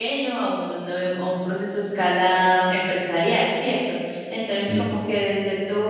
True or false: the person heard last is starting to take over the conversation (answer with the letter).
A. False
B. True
A